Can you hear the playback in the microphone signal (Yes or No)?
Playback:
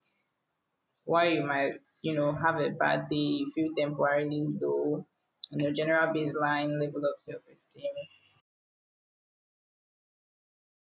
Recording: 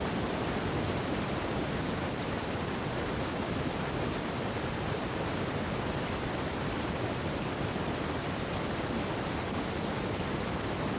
No